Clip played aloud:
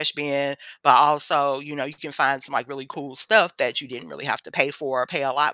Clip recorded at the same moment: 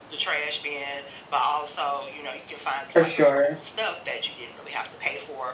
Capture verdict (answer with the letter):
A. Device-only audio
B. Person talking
B